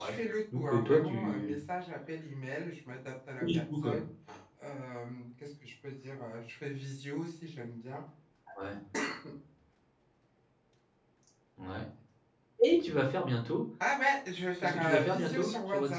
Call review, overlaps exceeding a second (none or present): present